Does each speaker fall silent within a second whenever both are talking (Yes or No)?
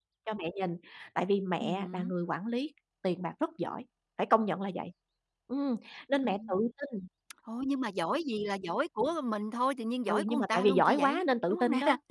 No